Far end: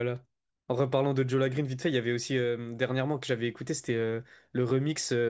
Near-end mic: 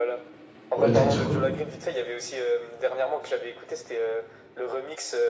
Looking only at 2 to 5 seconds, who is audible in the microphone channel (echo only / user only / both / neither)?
echo only